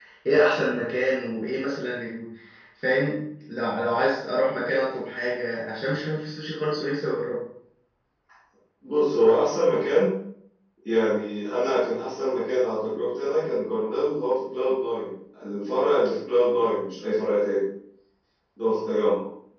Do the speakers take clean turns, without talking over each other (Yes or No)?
Yes